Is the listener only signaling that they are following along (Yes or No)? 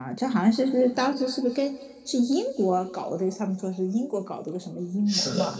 No